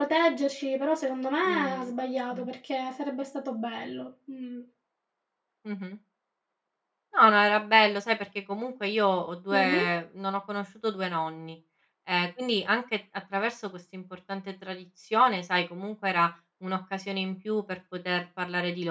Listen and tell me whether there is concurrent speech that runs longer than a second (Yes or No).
No